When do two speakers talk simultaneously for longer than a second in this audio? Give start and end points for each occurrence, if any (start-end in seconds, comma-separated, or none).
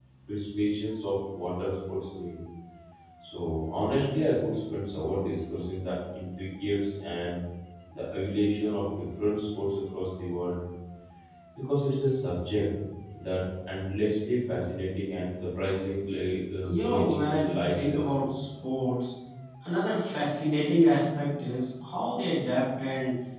16.6-18.1